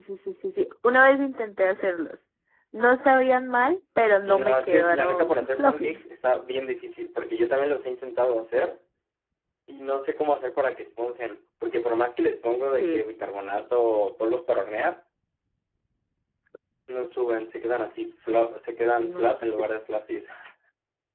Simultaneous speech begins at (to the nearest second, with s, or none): 4 s